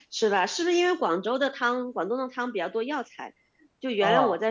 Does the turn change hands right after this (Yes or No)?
No